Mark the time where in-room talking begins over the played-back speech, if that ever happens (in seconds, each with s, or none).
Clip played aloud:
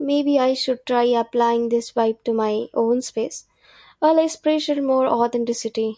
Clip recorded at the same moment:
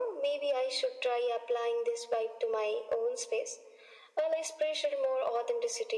none